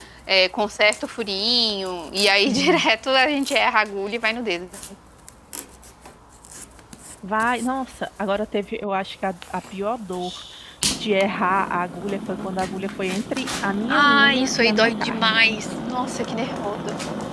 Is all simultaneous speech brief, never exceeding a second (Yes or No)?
No